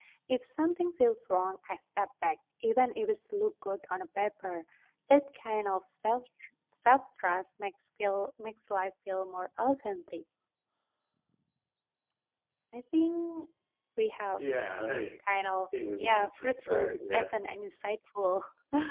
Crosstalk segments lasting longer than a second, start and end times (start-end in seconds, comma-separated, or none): 16.0-17.2